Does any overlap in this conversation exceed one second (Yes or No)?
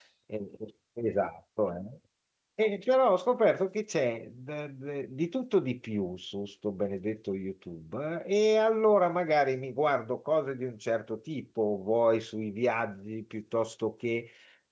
No